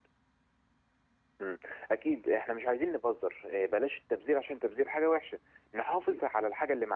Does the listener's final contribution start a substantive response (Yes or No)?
No